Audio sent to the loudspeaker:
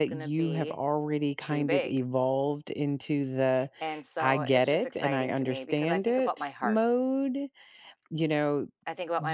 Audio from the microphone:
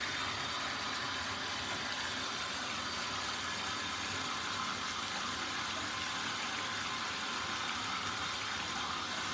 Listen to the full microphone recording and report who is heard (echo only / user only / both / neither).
neither